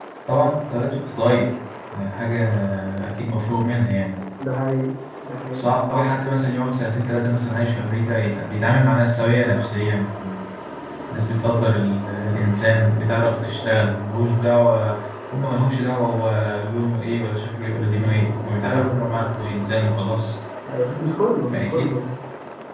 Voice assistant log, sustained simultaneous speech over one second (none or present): none